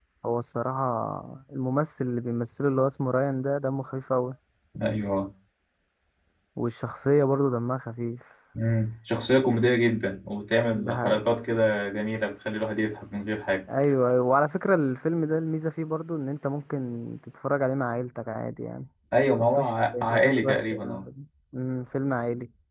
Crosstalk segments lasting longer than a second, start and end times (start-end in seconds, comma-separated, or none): 19.4-21.1